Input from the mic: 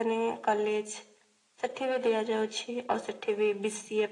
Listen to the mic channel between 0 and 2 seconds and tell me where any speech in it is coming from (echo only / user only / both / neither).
echo only